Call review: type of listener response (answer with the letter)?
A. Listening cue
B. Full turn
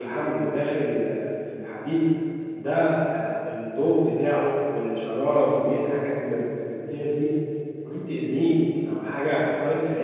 A